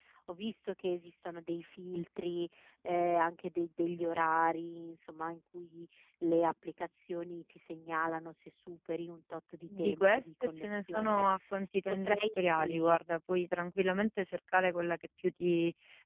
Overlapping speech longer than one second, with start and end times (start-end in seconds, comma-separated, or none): 9.8-11.3